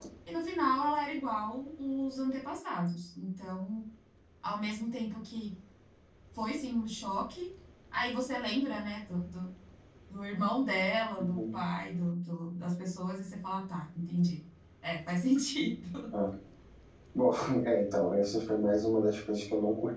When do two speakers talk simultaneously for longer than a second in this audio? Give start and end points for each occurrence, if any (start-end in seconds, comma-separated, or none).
none